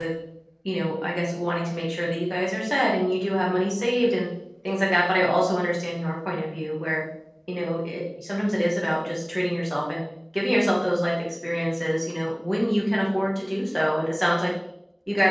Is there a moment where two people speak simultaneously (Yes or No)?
No